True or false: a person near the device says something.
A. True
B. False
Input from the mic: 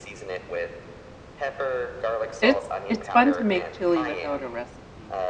A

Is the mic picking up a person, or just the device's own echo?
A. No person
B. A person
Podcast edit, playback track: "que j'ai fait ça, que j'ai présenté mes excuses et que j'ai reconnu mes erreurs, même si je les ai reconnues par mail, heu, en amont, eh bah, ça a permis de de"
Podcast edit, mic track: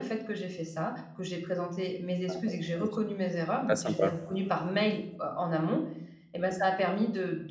B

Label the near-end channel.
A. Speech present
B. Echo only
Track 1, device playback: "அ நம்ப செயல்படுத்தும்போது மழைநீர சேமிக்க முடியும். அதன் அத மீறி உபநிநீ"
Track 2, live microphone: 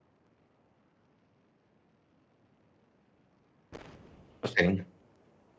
A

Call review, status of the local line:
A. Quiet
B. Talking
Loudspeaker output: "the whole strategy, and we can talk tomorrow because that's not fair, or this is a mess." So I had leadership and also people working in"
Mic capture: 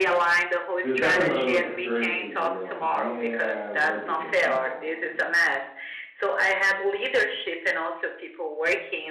B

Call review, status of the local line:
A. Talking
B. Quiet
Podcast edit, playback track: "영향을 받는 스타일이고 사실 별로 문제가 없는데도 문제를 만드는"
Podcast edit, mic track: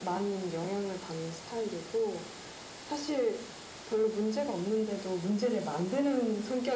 B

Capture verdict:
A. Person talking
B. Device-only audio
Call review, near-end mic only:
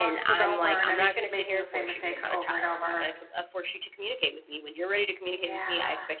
A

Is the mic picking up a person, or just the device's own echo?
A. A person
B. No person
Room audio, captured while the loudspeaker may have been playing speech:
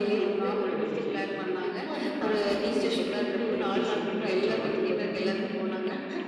B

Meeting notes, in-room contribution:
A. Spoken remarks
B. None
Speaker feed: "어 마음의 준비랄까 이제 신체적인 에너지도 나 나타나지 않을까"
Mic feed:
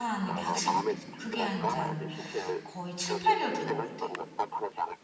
A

